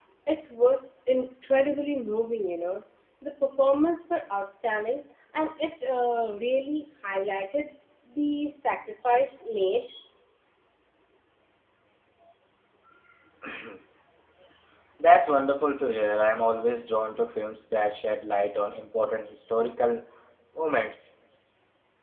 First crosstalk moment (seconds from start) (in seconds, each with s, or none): none